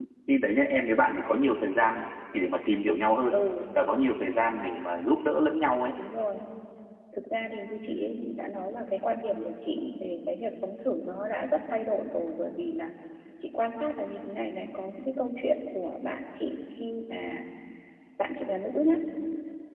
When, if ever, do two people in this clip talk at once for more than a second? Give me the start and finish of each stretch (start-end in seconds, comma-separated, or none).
none